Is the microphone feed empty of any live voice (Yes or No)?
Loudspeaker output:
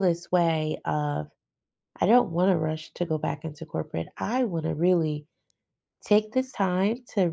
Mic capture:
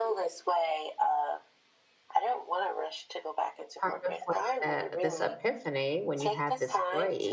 No